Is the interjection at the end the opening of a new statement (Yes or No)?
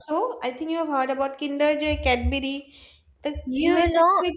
Yes